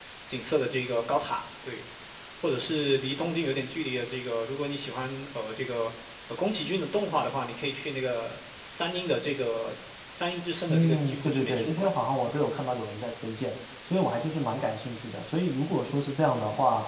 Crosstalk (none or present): present